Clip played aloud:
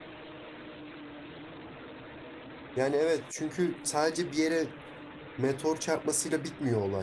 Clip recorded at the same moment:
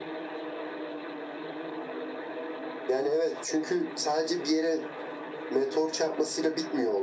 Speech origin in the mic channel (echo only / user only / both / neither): echo only